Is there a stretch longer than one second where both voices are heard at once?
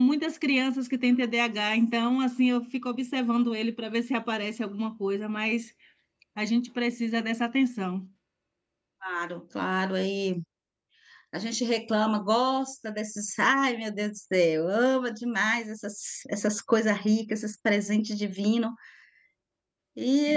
No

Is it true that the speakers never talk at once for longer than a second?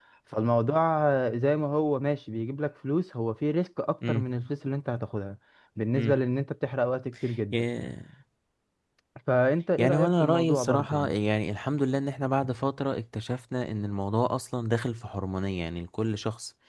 No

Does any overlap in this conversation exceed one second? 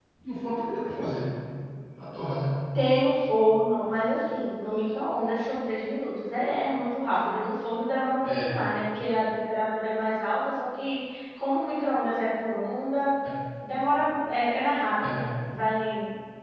No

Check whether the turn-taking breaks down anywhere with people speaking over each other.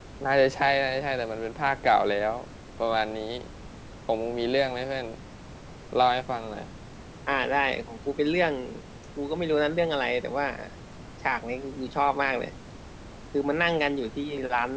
No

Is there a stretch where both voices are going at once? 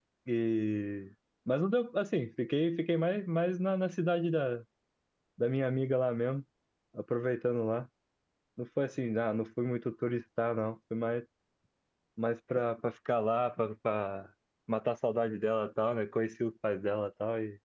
No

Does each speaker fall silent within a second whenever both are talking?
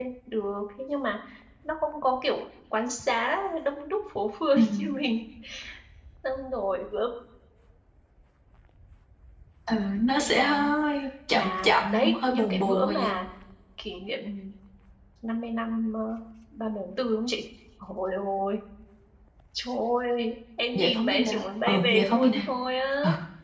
No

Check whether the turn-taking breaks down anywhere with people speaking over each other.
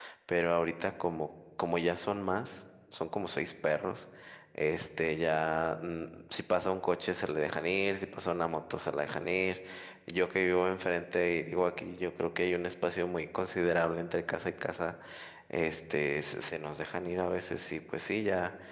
No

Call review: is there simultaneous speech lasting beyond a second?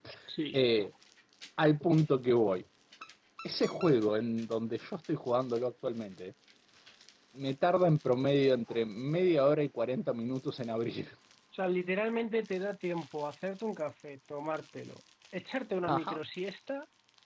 No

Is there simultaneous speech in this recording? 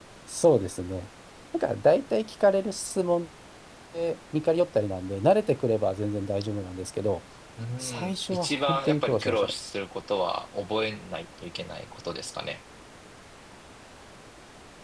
Yes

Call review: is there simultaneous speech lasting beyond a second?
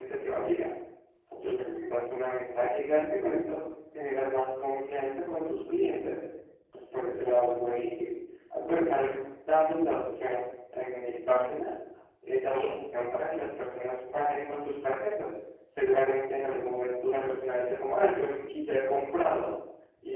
Yes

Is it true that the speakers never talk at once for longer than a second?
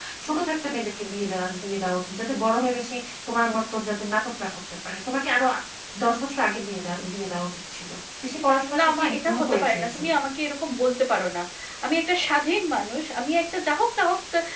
No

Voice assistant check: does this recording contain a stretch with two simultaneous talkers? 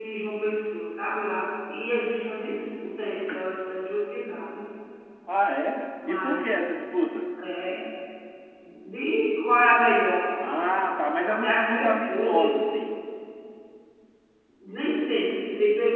Yes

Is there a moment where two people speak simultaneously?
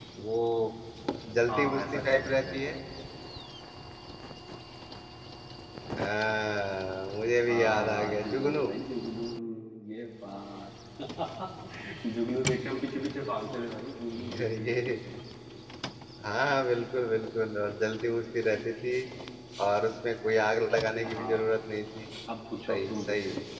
Yes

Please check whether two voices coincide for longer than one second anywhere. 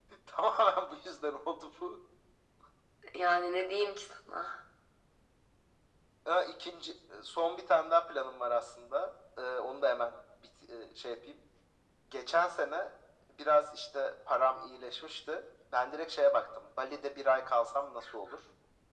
No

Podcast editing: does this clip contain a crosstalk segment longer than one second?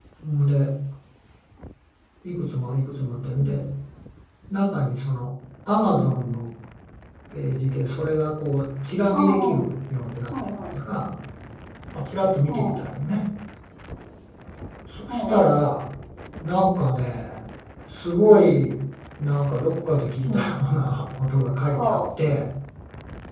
No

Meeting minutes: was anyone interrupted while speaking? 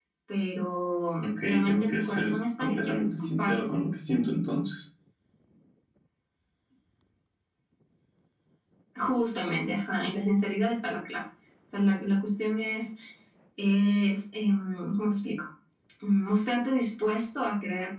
Yes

